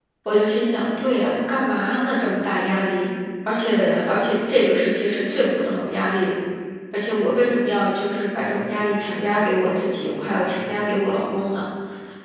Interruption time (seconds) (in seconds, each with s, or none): none